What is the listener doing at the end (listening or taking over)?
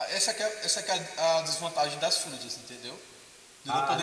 taking over